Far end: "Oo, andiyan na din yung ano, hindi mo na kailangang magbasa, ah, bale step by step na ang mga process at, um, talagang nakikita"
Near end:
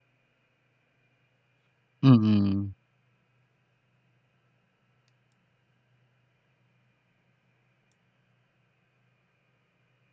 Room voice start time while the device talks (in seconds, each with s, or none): 2.0 s